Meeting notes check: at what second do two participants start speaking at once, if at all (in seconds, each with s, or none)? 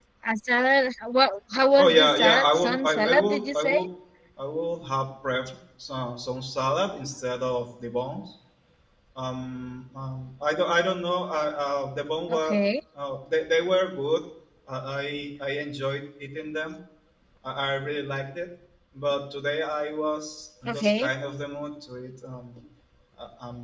1.8 s